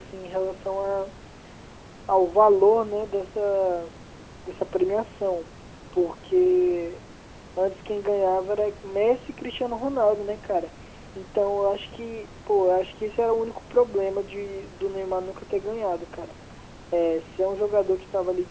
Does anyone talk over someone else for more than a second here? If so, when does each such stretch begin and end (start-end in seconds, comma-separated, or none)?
none